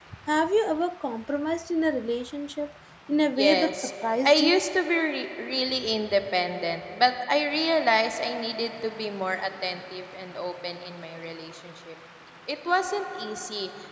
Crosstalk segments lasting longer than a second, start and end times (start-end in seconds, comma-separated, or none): 3.4-4.6